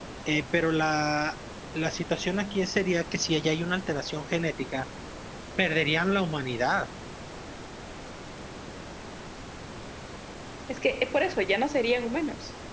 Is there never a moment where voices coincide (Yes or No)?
Yes